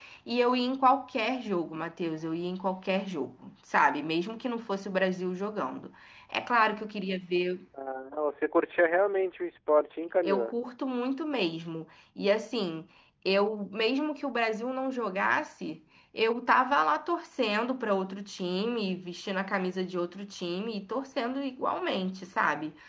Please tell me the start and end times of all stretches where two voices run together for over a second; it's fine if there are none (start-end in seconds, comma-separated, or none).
none